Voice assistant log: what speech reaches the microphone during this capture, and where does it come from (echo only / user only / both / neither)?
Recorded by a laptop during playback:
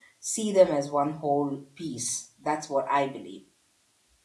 user only